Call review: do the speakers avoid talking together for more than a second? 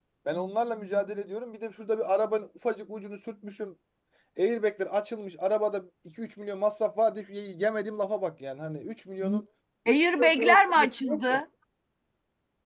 No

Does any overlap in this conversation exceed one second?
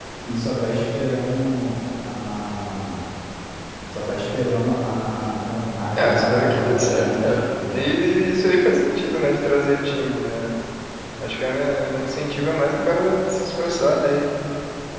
Yes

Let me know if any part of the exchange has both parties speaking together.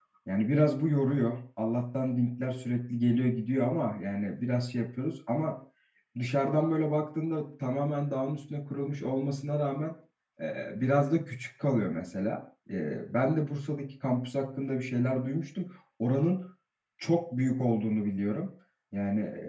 No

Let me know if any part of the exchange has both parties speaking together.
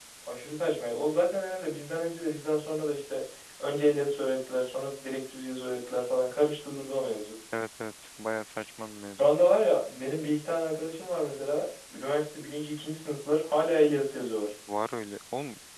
No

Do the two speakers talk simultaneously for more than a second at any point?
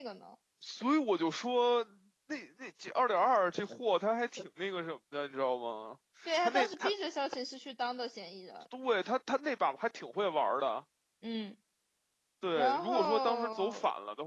Yes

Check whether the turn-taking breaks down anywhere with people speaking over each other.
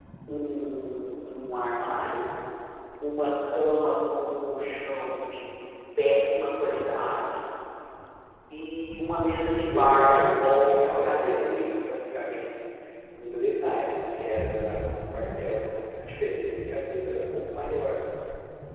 Yes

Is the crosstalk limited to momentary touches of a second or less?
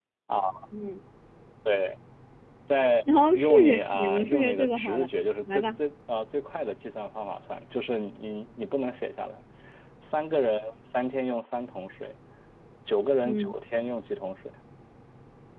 No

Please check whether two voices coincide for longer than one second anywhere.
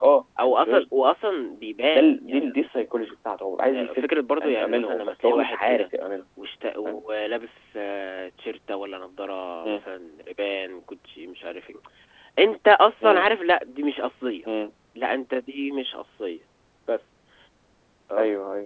Yes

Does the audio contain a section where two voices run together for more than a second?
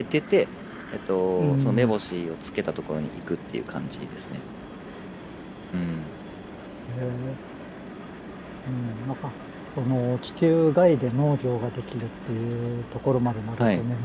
No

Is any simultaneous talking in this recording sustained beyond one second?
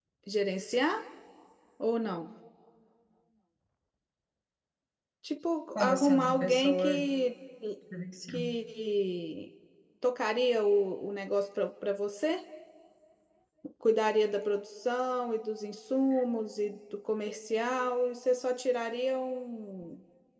Yes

